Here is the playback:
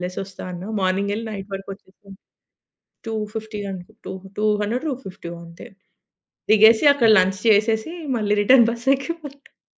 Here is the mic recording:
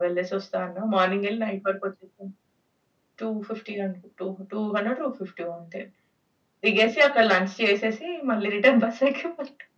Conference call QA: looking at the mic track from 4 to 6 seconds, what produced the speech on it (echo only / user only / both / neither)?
echo only